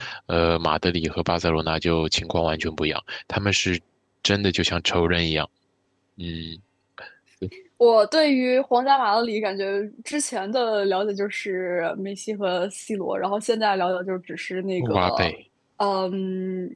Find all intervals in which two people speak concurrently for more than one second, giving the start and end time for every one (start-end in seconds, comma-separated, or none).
none